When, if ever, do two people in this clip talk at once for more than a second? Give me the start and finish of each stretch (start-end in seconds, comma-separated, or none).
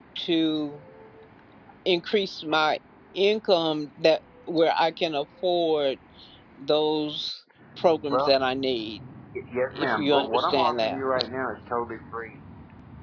9.8-11.0